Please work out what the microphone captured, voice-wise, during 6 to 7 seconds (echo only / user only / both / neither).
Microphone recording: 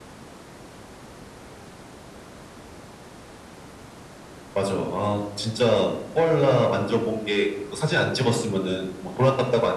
echo only